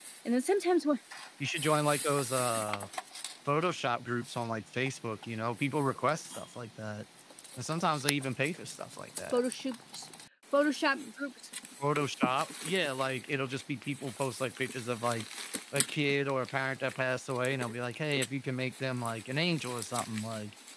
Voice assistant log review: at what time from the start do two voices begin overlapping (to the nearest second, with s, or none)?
none